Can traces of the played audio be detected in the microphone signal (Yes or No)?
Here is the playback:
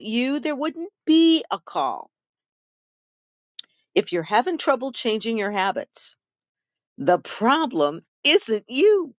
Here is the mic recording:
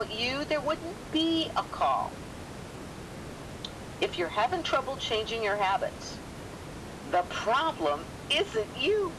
Yes